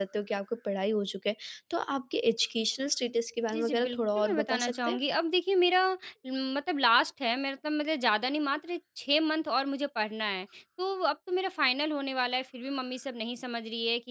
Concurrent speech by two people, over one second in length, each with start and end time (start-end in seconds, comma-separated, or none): 3.5-5.0